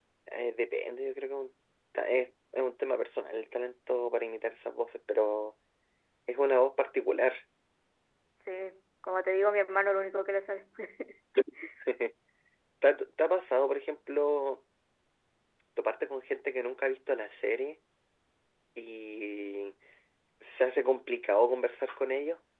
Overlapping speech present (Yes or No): No